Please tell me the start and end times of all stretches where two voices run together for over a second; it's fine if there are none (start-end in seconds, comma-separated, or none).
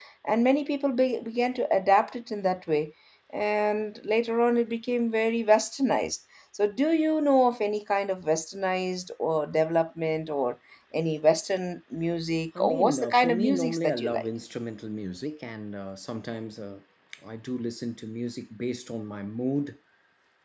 12.6-14.3